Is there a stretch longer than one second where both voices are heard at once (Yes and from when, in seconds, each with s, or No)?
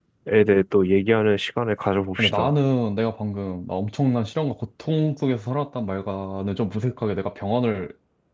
No